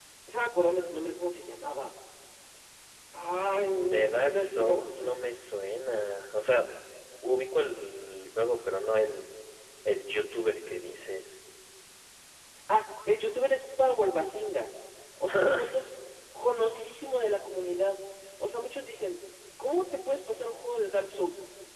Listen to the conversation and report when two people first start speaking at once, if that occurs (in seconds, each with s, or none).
3.8 s